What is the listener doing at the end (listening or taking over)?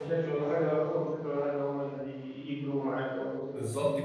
taking over